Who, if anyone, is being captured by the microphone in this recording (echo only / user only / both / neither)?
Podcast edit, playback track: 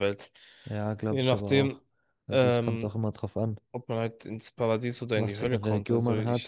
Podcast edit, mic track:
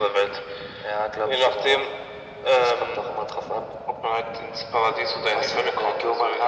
echo only